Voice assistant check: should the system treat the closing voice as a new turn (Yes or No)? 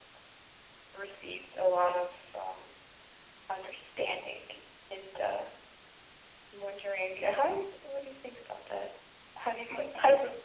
No